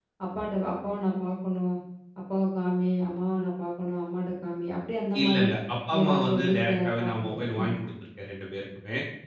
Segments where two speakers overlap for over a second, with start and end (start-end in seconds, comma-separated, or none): 6.0-7.8